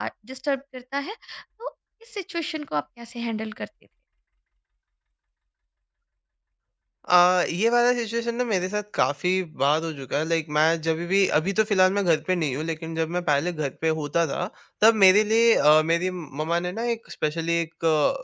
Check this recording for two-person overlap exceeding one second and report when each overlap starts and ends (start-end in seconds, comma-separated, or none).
none